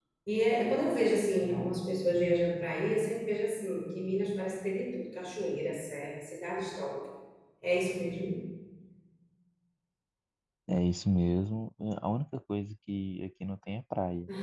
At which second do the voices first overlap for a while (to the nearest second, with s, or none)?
none